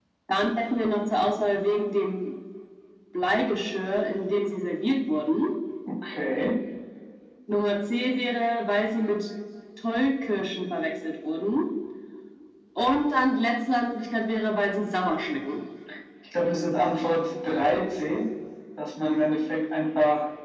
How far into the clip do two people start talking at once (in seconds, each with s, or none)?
none